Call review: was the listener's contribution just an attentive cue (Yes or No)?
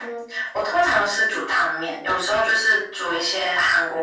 Yes